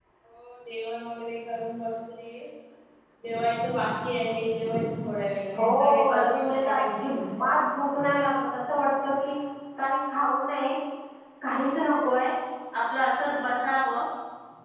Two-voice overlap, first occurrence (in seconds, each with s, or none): 5.5 s